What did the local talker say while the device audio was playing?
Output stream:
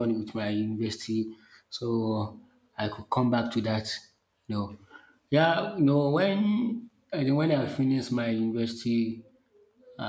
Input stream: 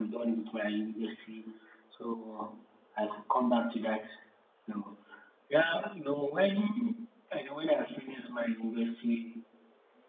none

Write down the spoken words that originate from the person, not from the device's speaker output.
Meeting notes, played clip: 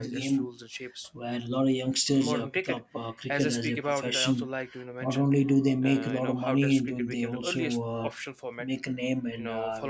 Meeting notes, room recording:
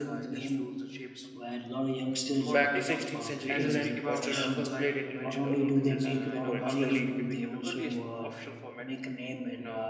back to 16th century England, where children first played it in, in the open fields before it slowly

